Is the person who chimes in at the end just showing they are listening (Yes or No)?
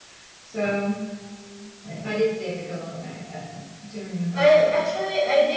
No